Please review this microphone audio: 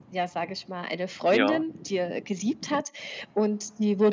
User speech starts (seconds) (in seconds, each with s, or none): 1.3 s